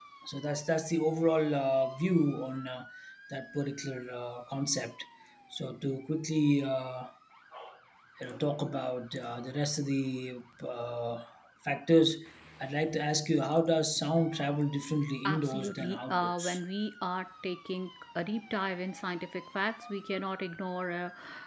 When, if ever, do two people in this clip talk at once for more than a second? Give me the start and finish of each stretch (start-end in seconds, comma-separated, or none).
15.2-16.6